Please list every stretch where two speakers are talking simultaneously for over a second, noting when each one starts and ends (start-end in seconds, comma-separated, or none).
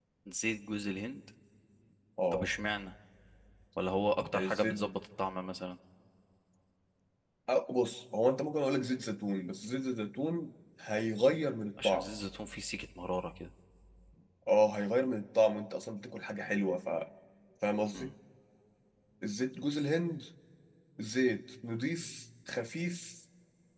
none